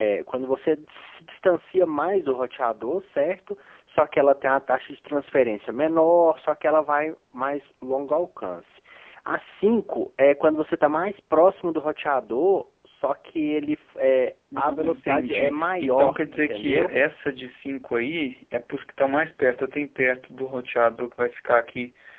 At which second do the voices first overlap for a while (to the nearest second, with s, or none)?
15 s